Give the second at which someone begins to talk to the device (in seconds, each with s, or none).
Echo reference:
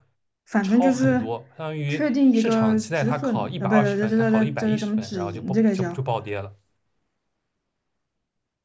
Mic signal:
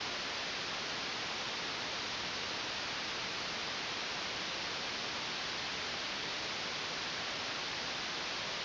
none